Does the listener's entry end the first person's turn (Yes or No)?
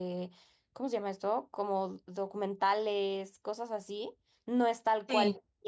No